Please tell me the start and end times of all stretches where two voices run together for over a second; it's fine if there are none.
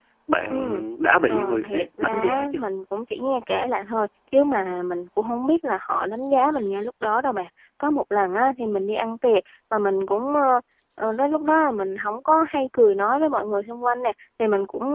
1.3-2.6

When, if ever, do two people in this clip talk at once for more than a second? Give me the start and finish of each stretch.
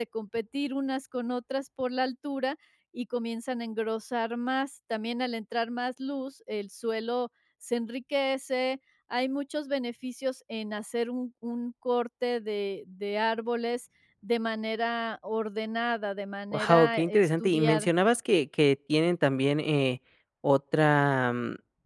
16.5-17.9

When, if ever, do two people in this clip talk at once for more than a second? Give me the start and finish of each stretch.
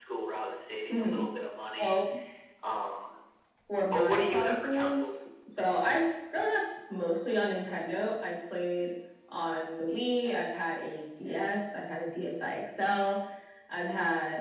3.9-5.1

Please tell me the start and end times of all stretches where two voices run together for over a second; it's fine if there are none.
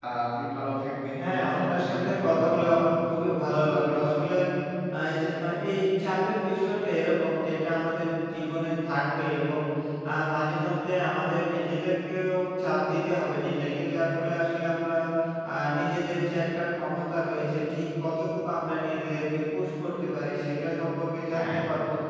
1.2-2.7

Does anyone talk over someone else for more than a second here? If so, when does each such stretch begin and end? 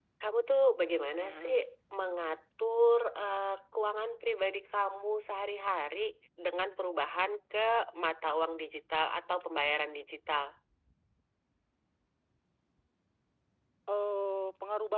none

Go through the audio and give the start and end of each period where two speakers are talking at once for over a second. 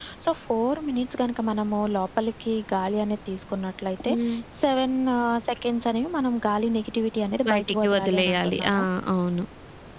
7.5-8.8

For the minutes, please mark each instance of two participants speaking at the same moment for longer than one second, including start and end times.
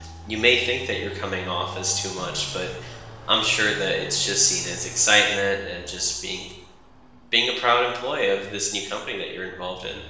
none

